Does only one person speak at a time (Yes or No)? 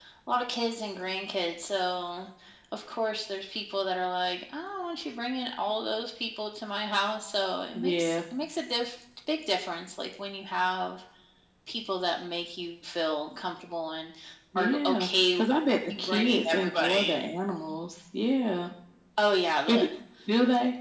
No